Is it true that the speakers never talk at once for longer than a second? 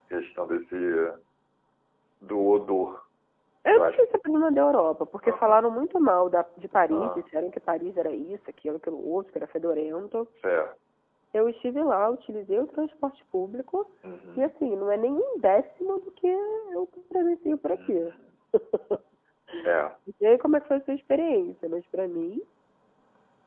Yes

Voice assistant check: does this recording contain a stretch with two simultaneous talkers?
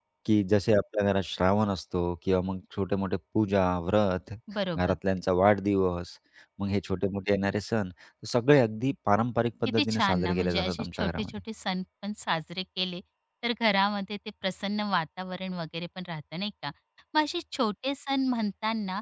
Yes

